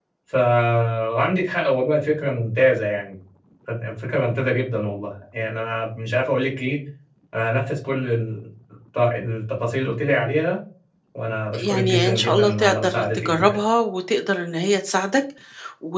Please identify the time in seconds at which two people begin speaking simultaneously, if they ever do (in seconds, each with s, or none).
11.5 s